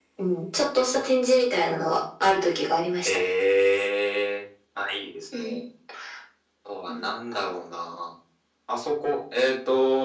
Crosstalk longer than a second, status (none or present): none